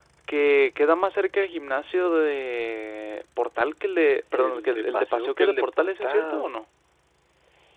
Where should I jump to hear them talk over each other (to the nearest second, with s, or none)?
4 s